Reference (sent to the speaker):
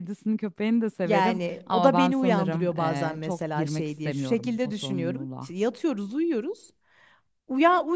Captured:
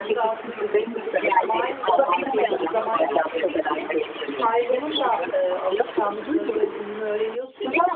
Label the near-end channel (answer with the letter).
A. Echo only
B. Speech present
B